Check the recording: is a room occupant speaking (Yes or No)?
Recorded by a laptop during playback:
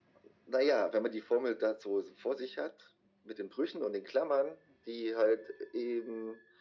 No